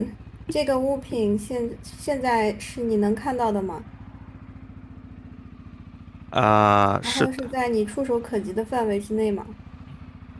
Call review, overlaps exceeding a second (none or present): none